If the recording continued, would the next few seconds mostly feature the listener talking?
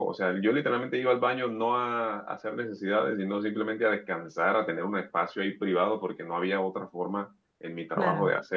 No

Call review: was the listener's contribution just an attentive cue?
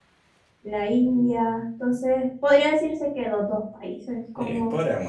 No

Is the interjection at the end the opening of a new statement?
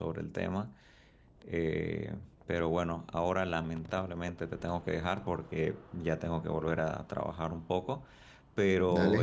No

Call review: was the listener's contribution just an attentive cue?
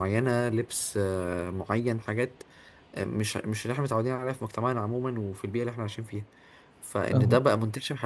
Yes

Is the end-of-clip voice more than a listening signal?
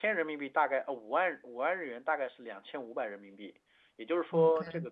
No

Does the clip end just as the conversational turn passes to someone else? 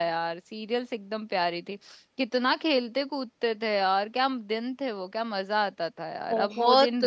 Yes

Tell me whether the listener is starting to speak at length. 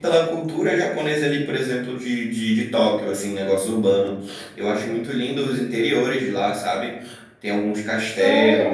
No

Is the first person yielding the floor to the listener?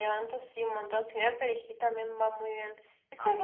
No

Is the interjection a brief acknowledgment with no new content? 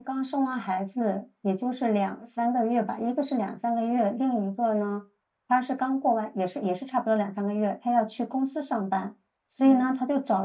Yes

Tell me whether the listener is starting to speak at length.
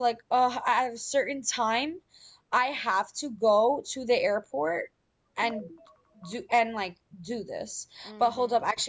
No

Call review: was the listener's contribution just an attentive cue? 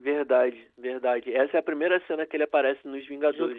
No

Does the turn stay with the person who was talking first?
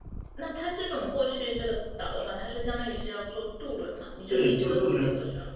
No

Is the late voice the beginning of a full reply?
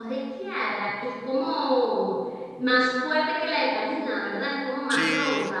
Yes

